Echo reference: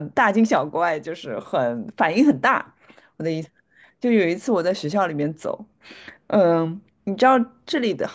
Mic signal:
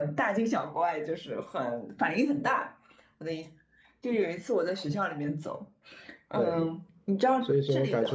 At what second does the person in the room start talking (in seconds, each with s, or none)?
6.3 s